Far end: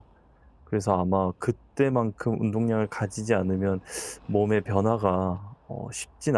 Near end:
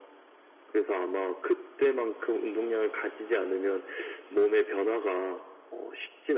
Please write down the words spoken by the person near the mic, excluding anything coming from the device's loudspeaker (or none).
none